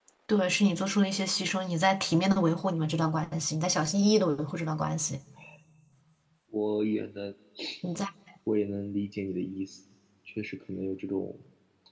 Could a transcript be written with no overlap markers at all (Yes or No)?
Yes